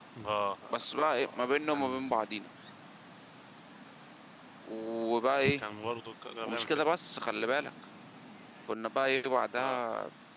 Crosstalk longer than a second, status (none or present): present